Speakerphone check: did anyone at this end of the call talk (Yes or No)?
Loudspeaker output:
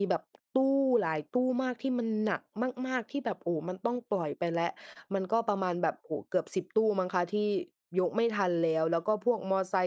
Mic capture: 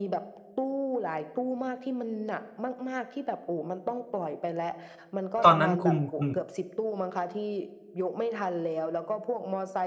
Yes